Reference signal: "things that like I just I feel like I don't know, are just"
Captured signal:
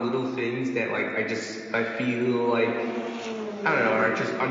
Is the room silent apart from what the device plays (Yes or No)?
Yes